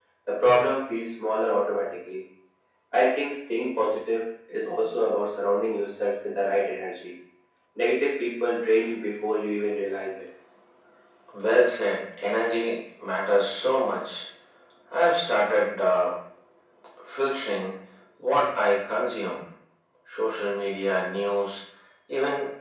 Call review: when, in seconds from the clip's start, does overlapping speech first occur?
none

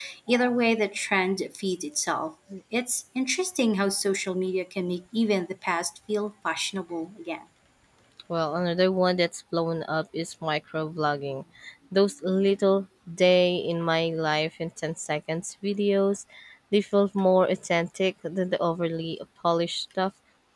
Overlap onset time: none

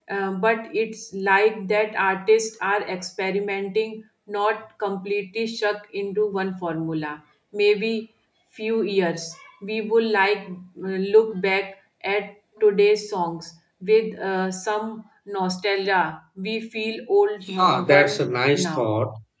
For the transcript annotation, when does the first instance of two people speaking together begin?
17.4 s

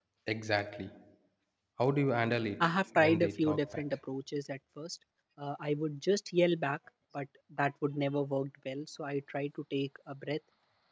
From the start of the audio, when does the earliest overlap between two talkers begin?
2.6 s

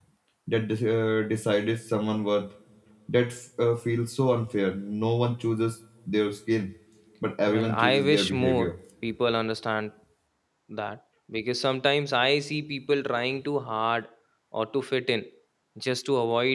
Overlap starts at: 7.5 s

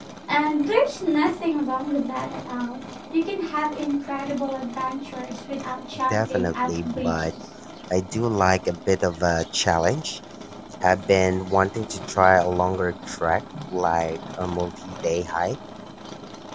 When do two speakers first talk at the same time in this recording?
6.1 s

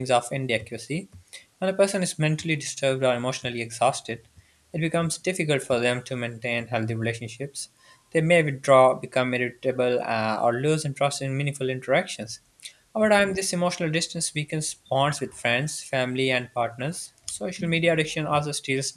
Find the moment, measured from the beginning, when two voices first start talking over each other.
none

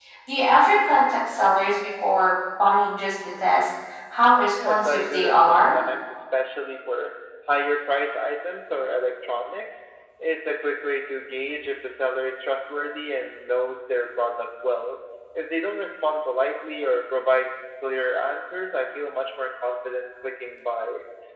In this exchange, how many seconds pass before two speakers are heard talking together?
4.3 s

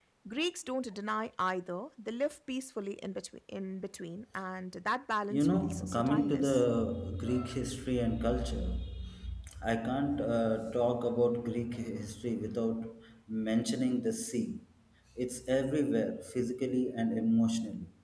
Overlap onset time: 5.3 s

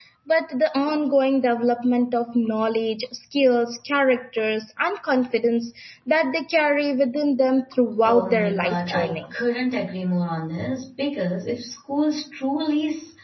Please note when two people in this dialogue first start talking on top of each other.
8.0 s

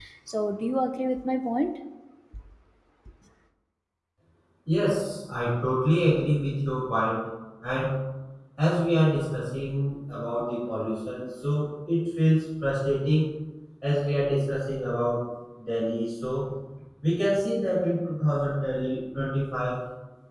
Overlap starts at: none

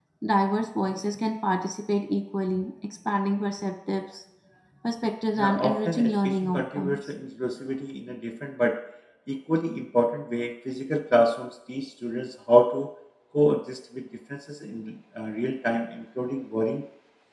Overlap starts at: 5.4 s

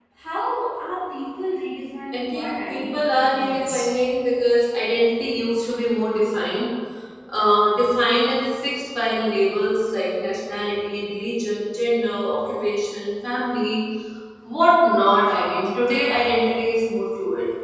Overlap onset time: 2.1 s

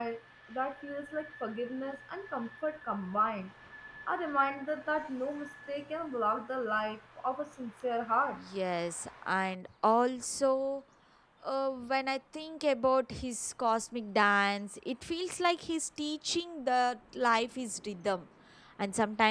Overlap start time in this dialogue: none

